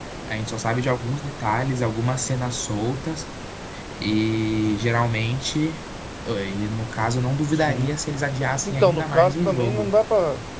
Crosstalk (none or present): present